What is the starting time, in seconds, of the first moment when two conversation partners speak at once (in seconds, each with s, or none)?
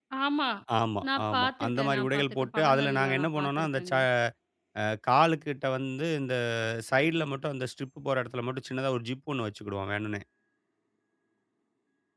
1.2 s